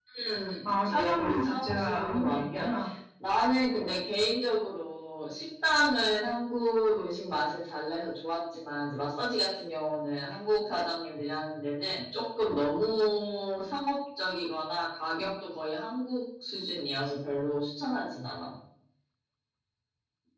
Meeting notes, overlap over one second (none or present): present